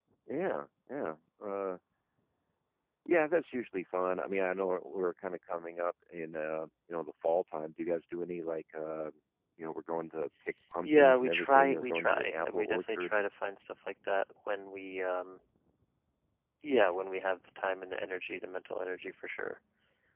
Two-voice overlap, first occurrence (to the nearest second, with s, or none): 11 s